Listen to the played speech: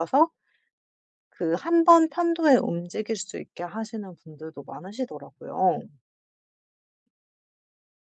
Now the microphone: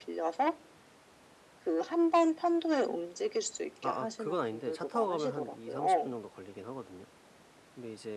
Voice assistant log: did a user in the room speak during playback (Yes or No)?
Yes